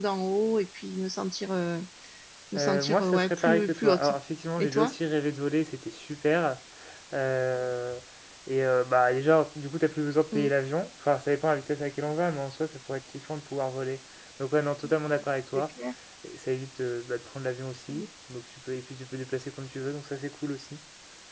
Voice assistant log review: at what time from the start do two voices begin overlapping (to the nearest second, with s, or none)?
3 s